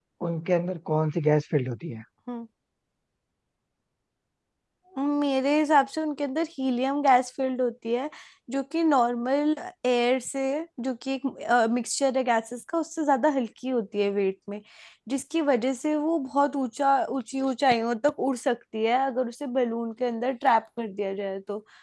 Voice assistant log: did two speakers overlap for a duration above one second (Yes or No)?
No